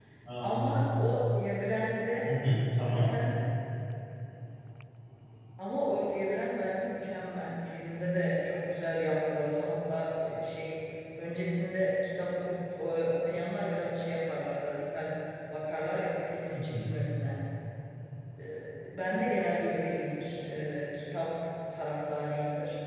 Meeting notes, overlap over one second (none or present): none